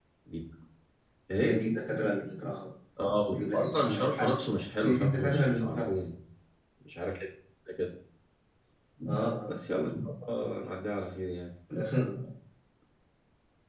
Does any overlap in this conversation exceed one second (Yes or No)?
Yes